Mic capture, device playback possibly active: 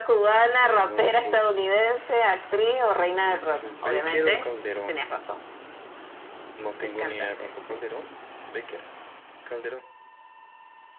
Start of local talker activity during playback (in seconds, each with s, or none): none